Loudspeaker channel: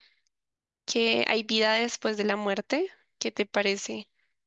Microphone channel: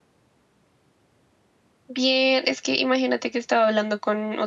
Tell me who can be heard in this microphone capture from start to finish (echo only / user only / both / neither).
user only